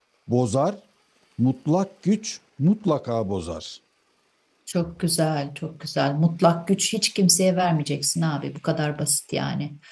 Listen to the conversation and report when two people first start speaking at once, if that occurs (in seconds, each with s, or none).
none